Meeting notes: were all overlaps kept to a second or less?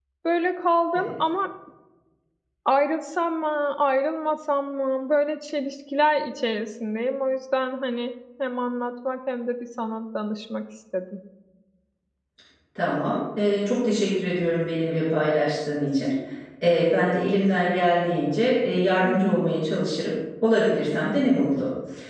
Yes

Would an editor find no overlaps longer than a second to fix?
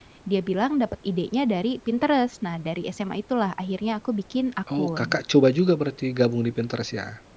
Yes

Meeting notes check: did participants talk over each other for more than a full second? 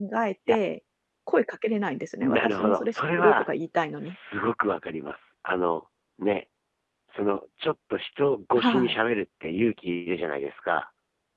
Yes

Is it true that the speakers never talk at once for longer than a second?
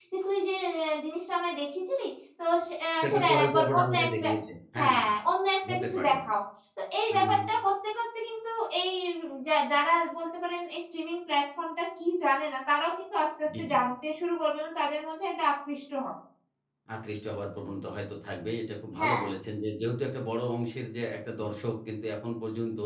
No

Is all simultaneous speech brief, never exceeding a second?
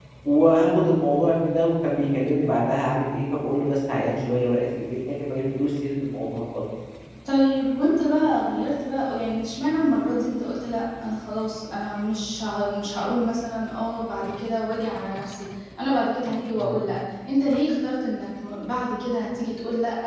Yes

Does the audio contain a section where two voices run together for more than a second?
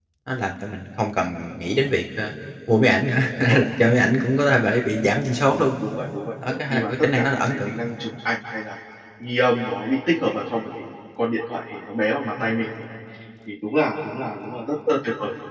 Yes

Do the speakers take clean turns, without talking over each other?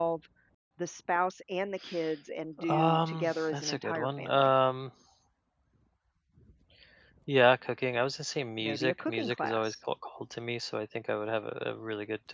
No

